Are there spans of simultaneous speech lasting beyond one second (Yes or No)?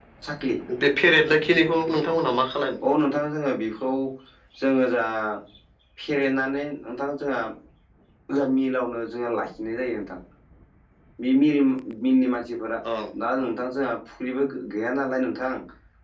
No